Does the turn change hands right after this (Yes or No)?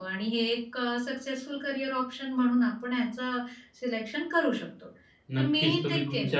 Yes